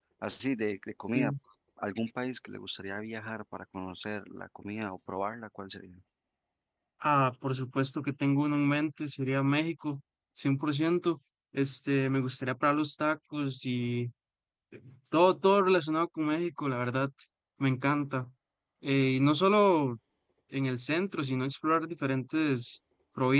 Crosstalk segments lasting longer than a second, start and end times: none

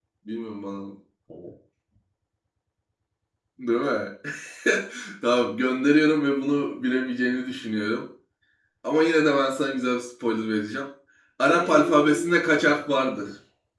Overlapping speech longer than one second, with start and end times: 11.5-12.8

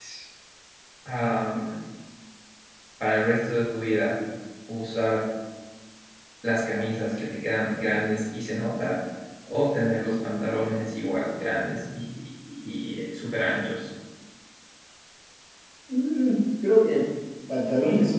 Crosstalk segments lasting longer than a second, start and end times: none

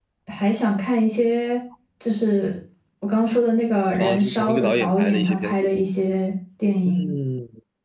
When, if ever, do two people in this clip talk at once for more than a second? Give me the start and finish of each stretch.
4.0-5.7

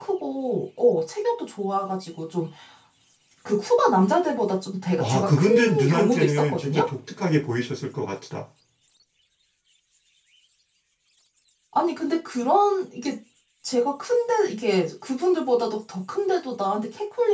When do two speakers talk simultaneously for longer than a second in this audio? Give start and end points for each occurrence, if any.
5.0-6.8

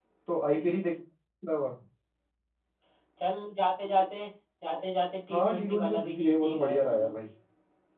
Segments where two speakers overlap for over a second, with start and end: 5.3-7.1

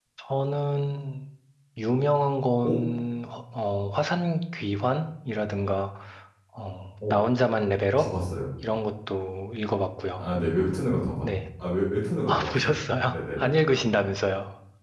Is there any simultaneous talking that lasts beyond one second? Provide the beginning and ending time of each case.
12.3-13.7

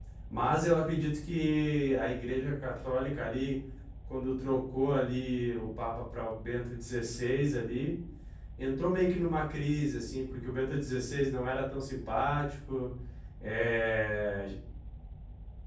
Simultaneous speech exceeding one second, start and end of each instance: none

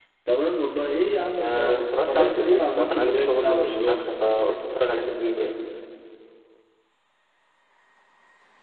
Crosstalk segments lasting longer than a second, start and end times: 1.4-4.0

